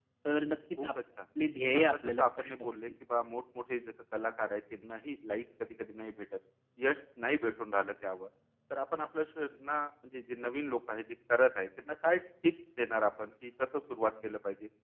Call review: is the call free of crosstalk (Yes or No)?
No